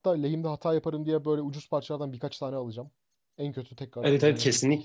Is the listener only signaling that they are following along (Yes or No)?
No